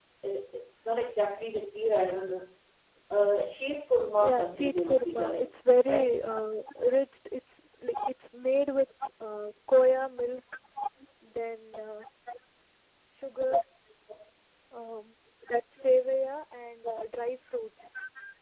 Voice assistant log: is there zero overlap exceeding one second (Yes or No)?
No